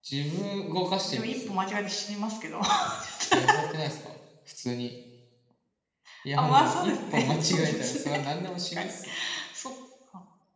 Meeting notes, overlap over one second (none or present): present